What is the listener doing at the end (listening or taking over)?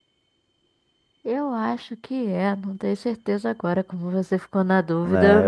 taking over